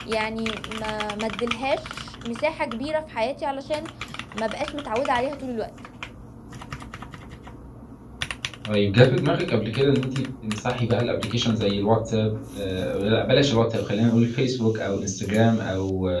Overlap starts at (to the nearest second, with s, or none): none